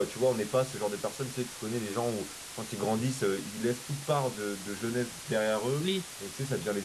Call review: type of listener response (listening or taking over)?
listening